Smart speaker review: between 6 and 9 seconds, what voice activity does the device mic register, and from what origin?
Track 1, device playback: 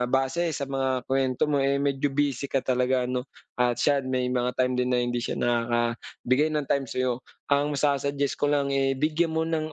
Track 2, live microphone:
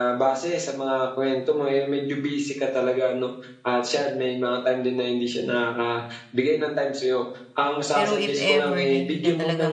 both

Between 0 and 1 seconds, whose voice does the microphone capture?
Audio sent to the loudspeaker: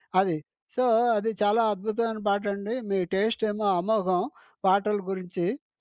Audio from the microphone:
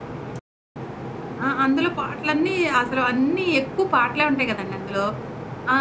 neither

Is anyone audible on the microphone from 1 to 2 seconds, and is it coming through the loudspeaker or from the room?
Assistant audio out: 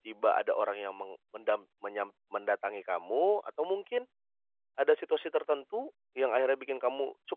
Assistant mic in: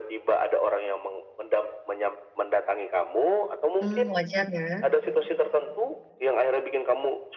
echo only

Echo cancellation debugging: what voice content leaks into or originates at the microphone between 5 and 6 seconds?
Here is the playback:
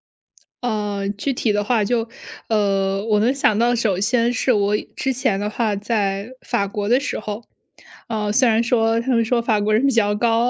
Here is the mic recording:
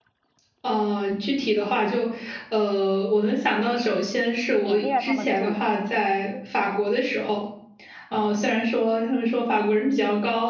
both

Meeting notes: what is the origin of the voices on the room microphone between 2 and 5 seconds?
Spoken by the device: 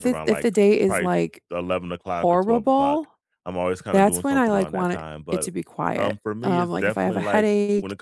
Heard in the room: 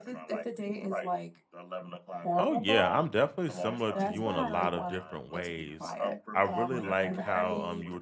both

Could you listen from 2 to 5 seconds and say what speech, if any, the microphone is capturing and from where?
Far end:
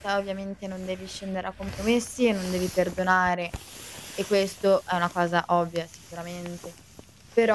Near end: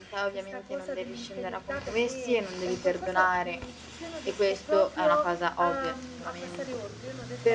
both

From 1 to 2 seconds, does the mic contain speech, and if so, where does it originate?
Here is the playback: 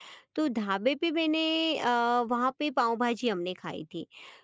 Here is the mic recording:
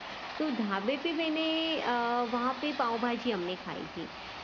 echo only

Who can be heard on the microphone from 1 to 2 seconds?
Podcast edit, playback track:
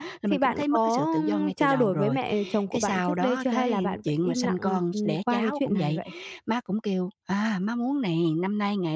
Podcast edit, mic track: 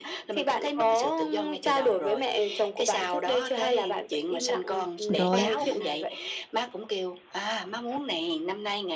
echo only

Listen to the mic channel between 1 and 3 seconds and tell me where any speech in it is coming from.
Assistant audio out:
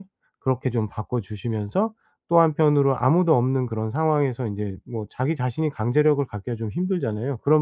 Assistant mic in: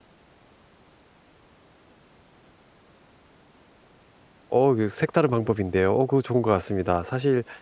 neither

